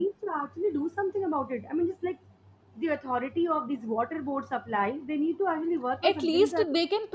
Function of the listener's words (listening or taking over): taking over